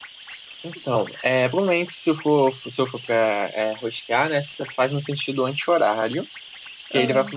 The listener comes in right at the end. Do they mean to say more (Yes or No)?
No